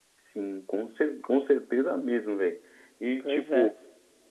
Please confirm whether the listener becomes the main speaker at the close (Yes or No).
No